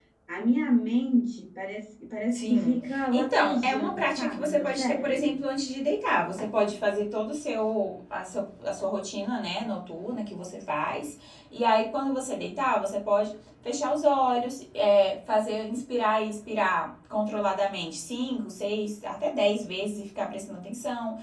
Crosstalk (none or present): present